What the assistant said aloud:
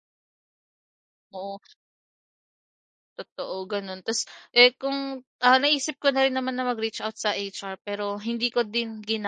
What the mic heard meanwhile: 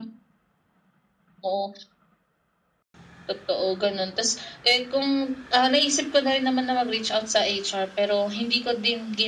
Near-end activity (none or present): none